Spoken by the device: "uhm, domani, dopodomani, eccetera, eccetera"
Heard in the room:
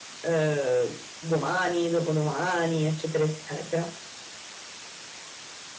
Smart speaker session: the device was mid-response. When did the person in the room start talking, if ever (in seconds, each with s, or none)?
none